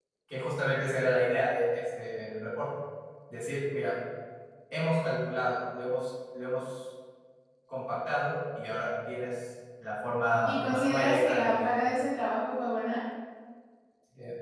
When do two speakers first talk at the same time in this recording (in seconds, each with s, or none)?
10.4 s